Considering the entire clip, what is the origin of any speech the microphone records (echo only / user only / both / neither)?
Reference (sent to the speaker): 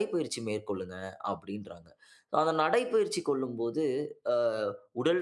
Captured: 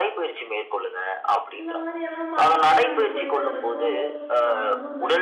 both